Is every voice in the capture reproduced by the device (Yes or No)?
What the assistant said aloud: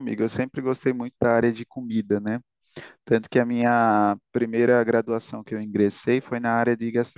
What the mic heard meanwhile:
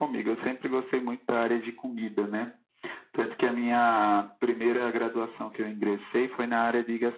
Yes